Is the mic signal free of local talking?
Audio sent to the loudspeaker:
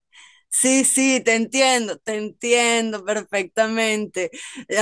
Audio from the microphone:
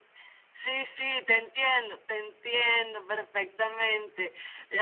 Yes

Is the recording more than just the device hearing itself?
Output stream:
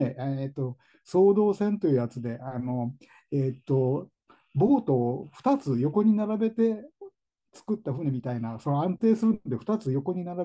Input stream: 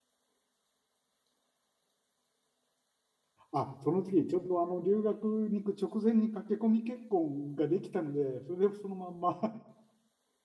Yes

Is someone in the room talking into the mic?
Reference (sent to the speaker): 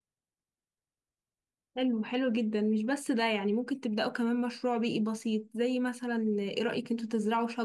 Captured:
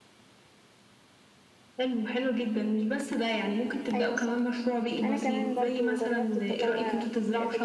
Yes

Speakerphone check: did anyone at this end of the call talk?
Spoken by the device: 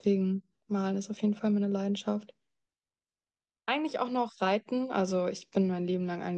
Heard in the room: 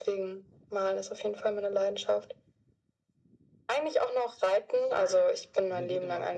Yes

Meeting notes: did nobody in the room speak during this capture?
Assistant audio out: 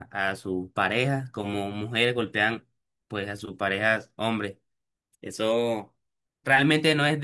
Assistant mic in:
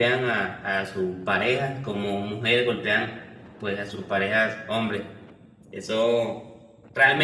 Yes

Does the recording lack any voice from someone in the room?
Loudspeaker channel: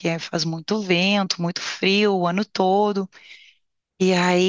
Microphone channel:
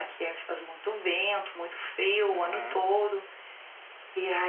No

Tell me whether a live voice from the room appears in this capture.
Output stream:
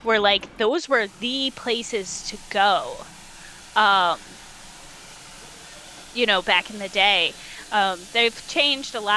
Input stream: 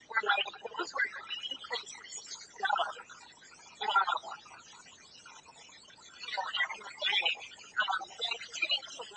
No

